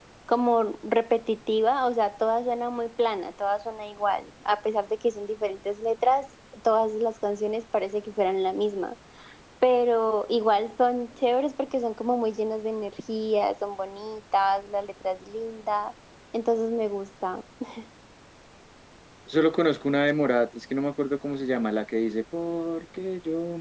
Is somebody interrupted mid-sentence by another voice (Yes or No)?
No